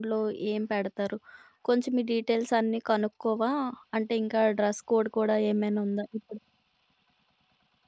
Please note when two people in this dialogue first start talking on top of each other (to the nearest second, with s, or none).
none